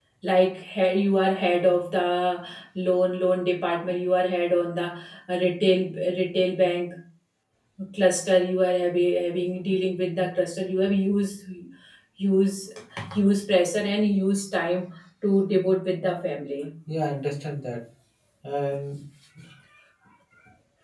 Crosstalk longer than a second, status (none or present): none